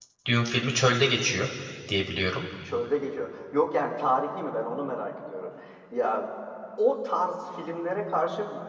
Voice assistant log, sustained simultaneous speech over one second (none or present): none